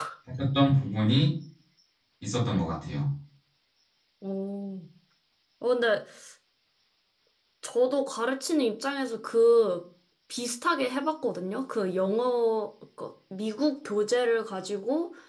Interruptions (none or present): none